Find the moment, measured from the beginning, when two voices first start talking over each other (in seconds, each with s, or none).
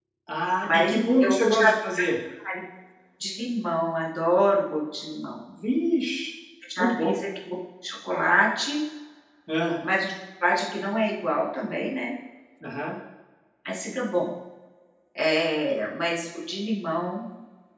0.7 s